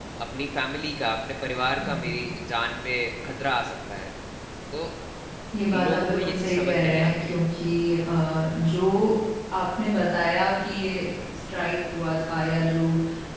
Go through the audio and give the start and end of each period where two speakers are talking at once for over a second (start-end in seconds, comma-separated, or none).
5.7-7.4